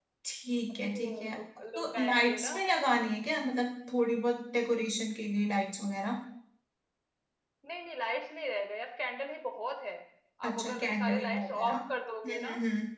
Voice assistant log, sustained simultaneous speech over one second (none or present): present